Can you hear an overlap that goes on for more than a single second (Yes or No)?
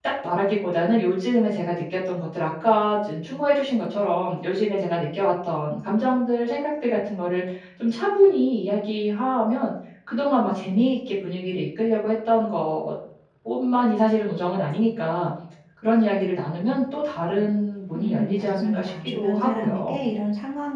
Yes